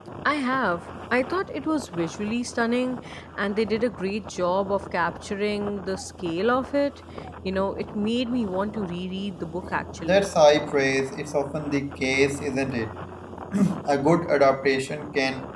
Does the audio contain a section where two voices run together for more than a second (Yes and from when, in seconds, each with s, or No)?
No